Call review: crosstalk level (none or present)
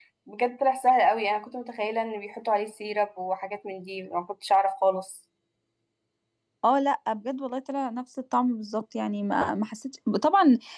none